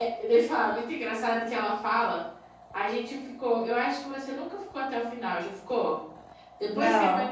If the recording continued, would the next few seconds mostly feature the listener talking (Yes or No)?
No